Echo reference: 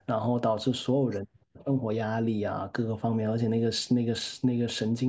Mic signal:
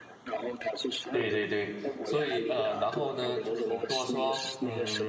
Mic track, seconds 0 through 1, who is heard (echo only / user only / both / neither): echo only